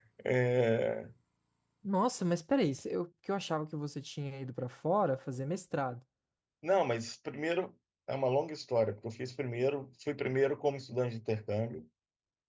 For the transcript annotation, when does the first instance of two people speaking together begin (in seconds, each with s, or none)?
none